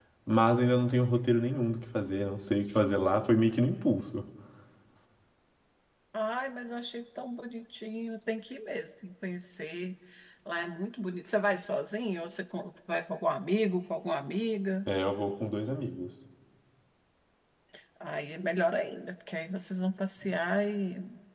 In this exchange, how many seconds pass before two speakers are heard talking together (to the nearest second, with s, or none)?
none